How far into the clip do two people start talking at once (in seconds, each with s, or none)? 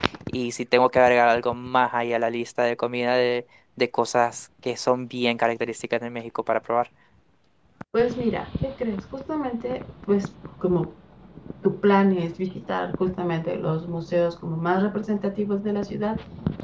none